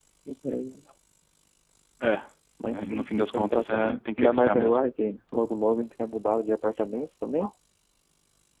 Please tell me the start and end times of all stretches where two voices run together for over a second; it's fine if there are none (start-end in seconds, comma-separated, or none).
2.7-4.8